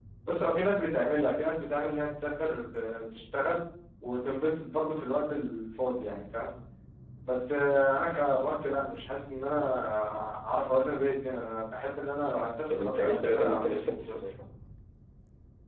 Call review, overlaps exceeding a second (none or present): present